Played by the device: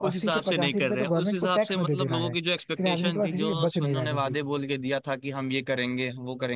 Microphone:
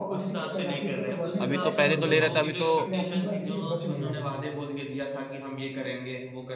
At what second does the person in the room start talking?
1 s

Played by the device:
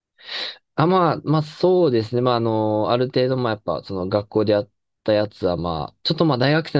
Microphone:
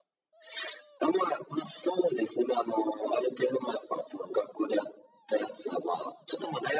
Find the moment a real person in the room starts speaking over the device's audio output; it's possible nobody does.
none

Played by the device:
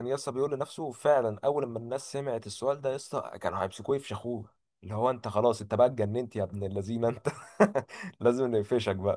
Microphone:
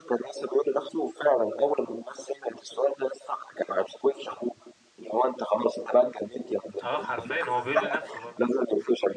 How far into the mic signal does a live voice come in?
7 s

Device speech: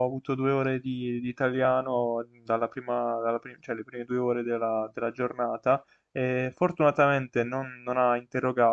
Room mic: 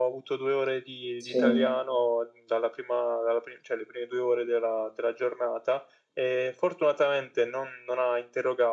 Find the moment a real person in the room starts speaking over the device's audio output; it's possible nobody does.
1 s

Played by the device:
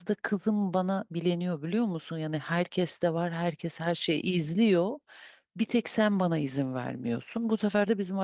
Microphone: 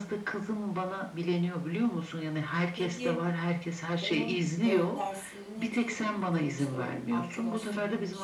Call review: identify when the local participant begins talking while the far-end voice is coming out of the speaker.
3 s

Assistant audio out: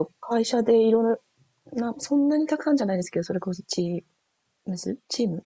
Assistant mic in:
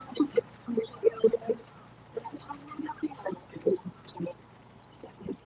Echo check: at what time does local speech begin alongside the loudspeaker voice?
none

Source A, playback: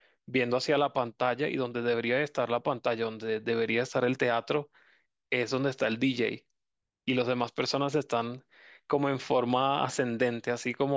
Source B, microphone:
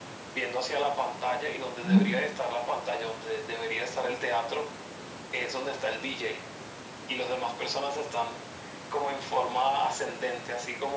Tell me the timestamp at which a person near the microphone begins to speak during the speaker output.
2 s

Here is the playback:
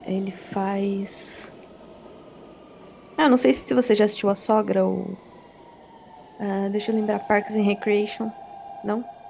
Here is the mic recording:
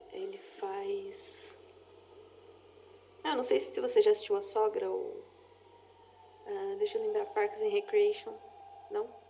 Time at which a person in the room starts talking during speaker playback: none

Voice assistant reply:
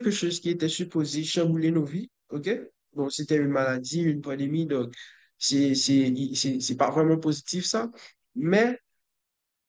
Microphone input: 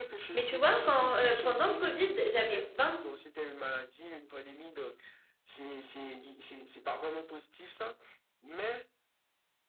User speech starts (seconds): 0 s

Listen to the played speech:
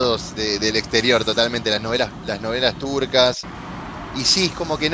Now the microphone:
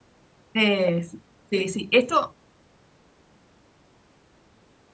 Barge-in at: 1 s

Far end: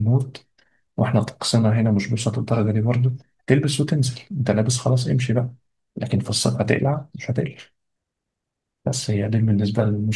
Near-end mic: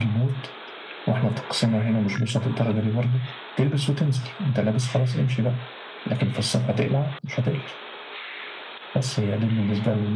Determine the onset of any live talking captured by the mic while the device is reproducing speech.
none

